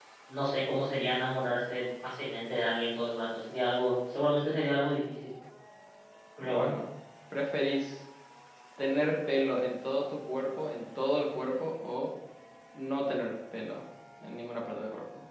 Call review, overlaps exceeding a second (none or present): none